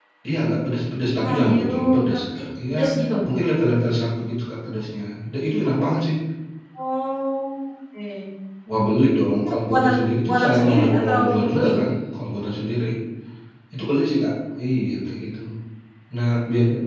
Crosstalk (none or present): present